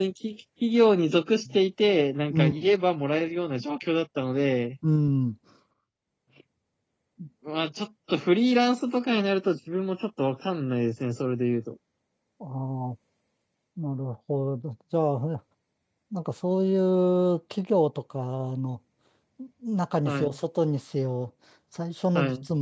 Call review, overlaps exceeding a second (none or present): none